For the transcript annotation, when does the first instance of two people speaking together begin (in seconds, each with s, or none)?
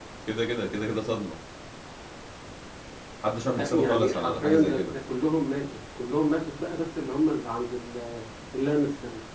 3.5 s